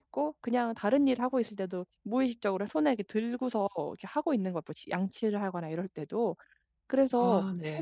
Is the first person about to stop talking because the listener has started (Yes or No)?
No